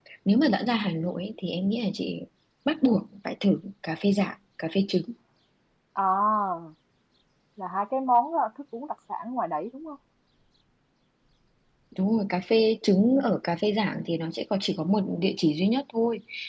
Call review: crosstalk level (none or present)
none